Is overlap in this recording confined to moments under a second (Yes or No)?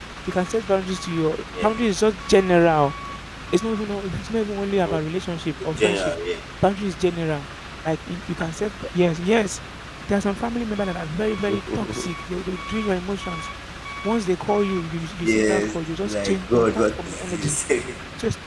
No